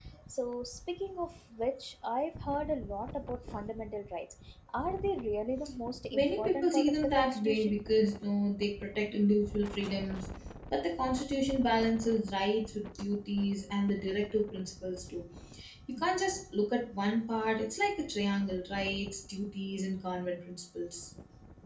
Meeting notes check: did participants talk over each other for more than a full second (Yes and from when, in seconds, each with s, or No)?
Yes, from 6.1 s